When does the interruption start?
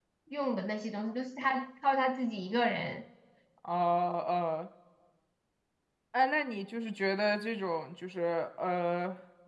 none

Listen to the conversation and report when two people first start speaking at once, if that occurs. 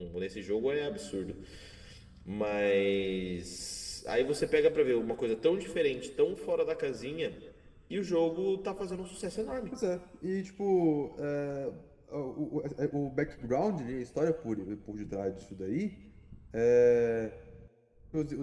none

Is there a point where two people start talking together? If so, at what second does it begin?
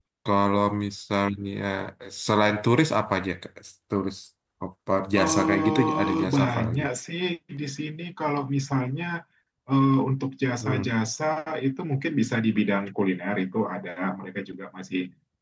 5.2 s

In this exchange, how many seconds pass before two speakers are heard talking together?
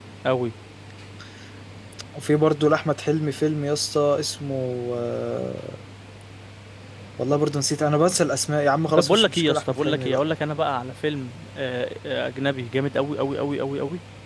8.9 s

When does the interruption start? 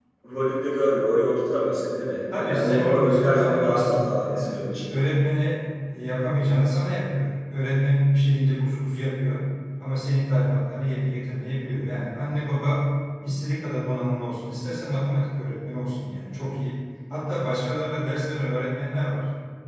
2.3 s

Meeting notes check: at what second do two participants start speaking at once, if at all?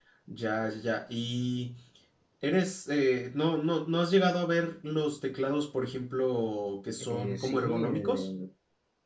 7.0 s

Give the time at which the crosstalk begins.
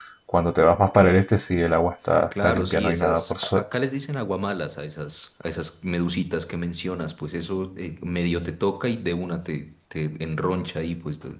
2.3 s

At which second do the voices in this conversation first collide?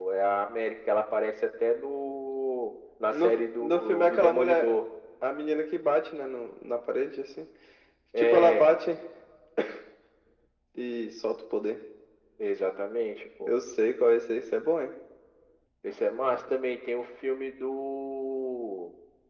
3.1 s

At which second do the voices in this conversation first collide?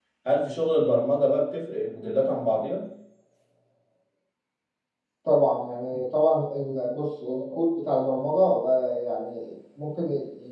none

